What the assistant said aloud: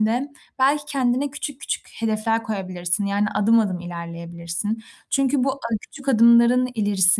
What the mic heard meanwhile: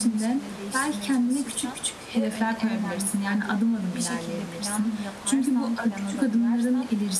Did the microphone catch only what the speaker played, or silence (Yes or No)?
No